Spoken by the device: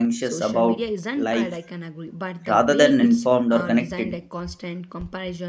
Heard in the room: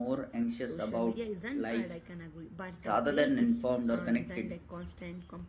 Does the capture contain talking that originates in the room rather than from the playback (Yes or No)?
No